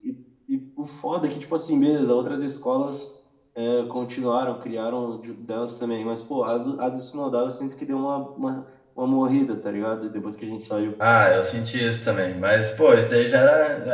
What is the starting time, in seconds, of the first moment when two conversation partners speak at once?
none

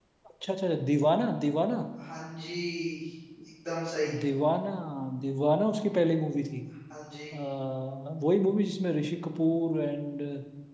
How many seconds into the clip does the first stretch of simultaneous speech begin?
none

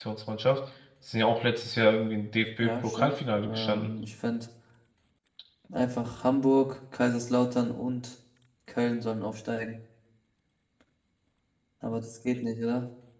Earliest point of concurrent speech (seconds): 2.6 s

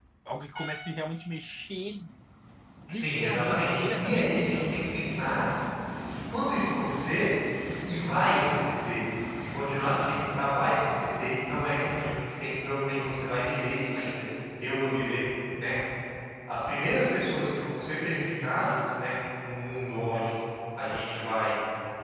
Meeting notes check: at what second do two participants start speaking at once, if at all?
2.9 s

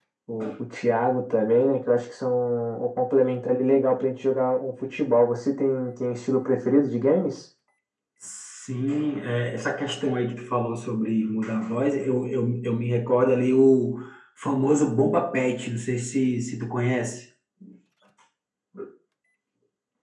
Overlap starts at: none

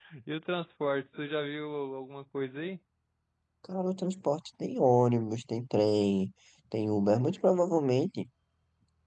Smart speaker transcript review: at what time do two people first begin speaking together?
none

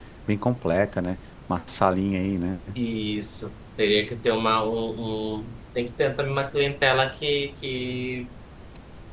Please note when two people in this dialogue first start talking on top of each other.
none

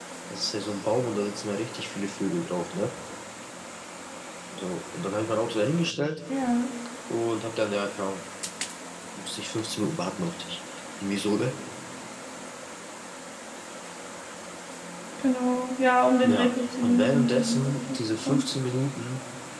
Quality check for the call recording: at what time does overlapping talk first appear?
16.2 s

